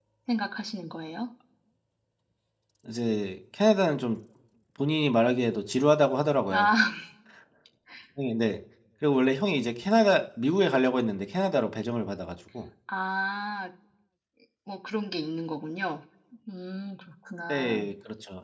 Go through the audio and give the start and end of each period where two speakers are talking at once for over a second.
none

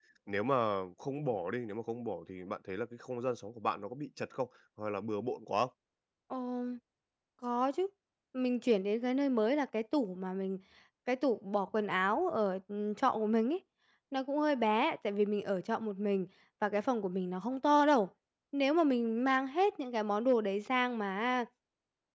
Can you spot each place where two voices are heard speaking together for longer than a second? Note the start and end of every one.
none

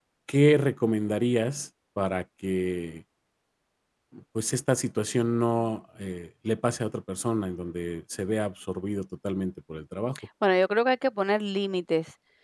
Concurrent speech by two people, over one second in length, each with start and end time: none

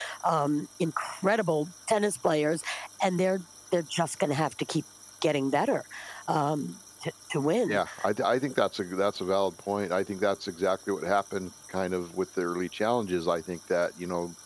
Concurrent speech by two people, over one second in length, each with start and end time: none

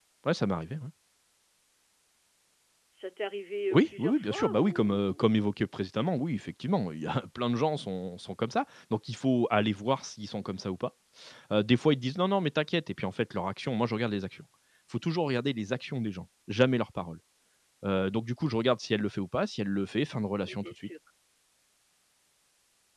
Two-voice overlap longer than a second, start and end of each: 3.7-5.3

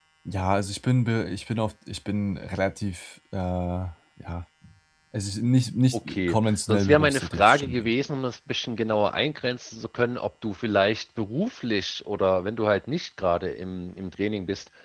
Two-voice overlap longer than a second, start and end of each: 6.1-7.8

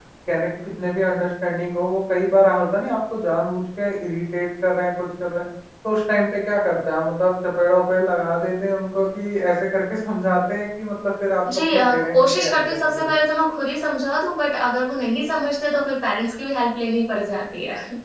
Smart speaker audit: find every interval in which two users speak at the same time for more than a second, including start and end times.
11.7-13.1

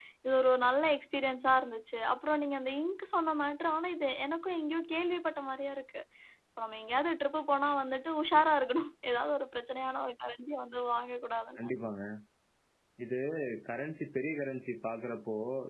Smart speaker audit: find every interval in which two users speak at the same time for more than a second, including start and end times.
none

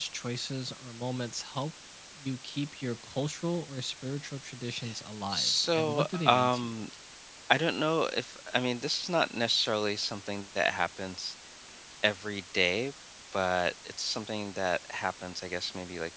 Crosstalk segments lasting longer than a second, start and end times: 5.3-6.7

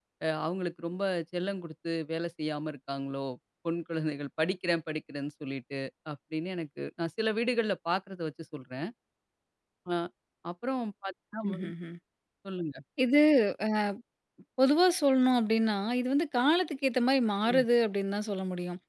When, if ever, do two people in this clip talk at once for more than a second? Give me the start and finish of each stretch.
none

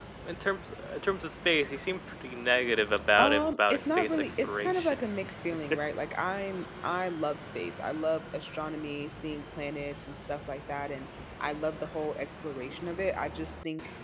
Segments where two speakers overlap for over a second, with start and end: 3.2-5.0

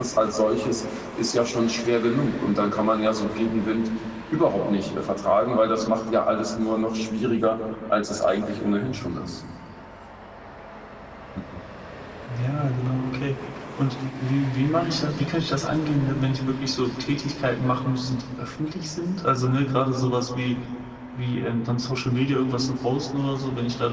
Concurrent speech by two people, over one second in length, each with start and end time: none

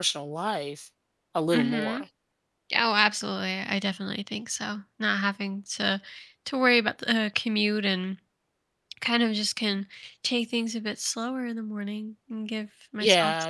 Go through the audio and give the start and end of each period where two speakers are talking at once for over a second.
none

